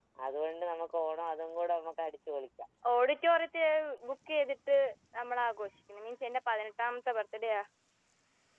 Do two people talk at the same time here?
No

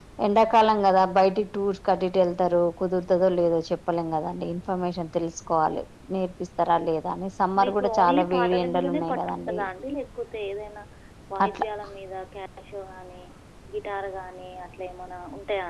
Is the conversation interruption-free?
No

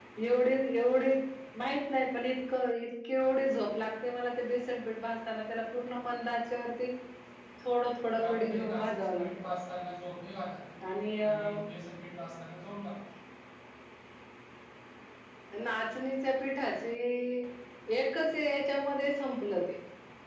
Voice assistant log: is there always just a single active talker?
No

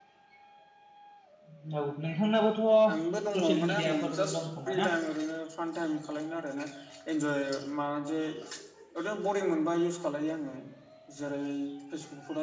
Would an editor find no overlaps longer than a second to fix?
No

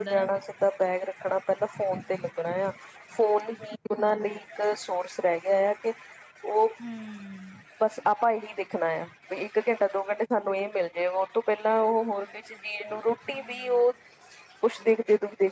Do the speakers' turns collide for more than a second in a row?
No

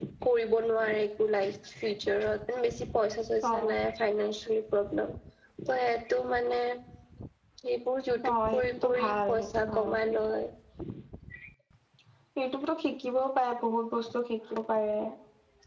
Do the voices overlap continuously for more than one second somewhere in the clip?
Yes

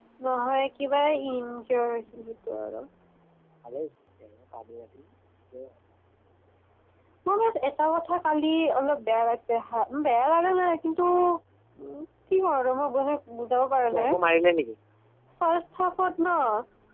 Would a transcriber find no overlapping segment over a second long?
Yes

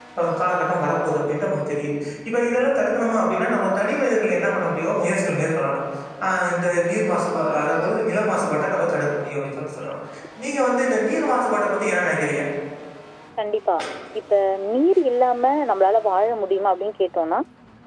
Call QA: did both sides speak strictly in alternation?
Yes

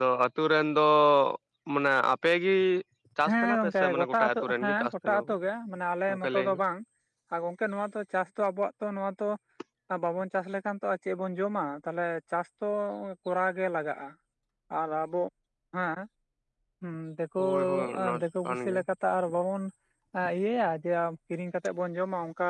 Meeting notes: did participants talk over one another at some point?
Yes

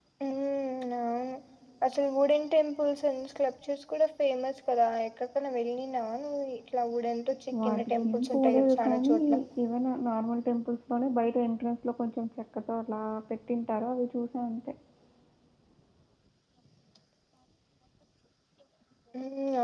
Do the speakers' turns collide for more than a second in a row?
Yes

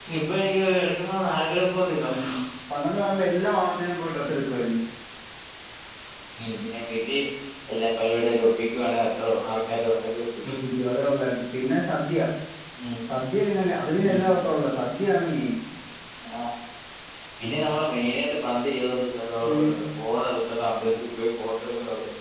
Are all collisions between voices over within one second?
Yes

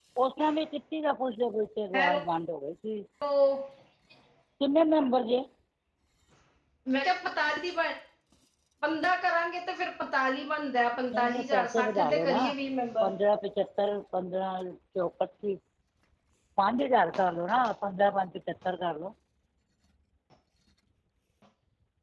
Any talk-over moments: Yes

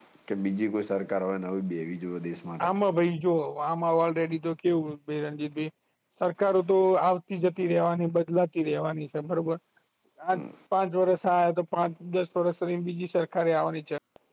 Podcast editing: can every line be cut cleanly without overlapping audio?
Yes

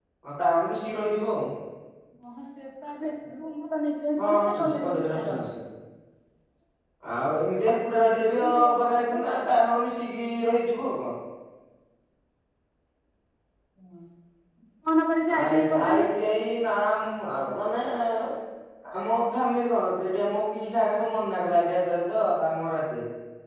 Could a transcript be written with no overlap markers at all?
No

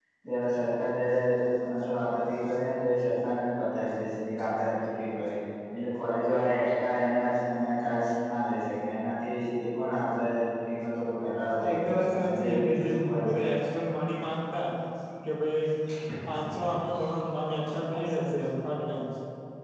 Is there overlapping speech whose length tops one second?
Yes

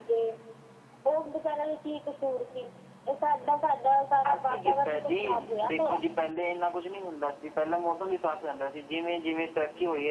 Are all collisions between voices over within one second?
No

